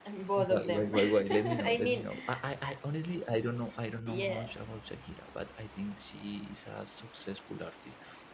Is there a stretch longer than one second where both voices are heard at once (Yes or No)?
Yes